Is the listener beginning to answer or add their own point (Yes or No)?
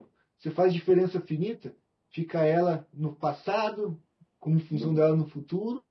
No